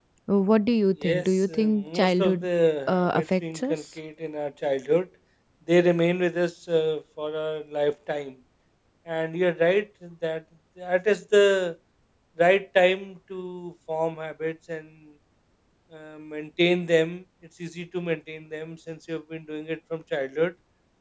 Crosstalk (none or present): present